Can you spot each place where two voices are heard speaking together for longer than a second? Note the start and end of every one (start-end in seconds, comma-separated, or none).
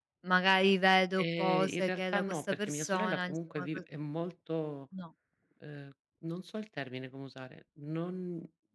1.2-3.8